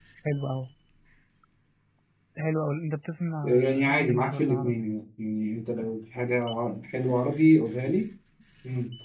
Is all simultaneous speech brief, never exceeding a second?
No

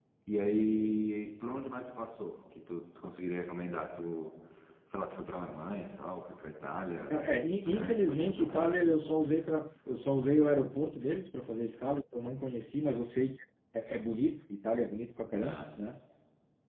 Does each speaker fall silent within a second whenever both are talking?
No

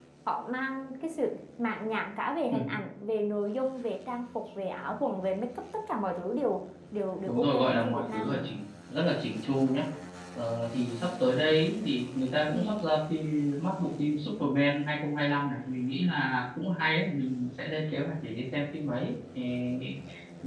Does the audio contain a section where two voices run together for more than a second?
Yes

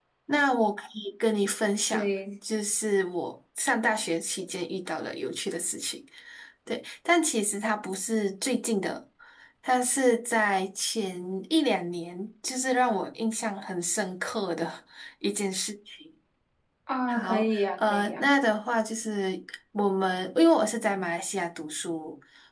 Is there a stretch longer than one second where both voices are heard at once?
Yes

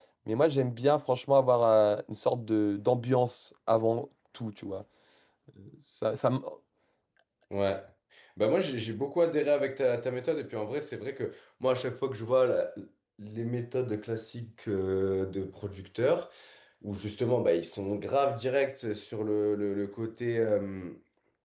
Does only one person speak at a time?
Yes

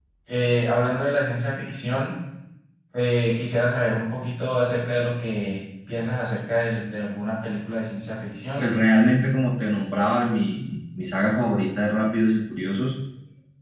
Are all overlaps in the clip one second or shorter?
Yes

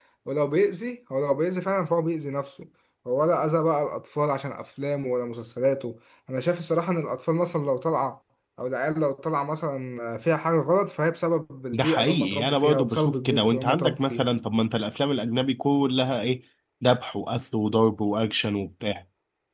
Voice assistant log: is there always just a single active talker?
No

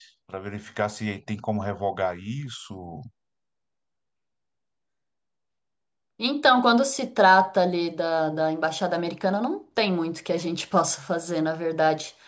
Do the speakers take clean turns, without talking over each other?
Yes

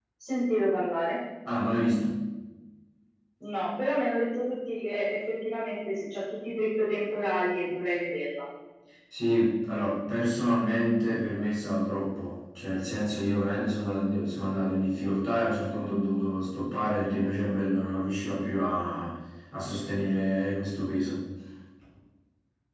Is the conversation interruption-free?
Yes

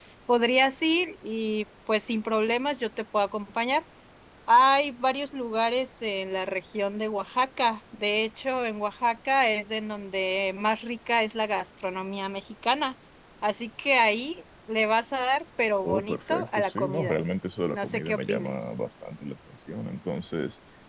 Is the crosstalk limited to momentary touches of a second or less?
No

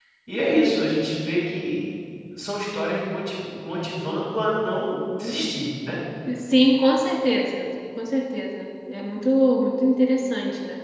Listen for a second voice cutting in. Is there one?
No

